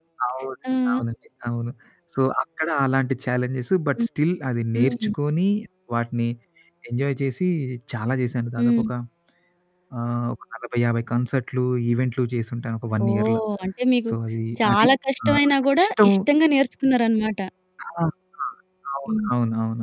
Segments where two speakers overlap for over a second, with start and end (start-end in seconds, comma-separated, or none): none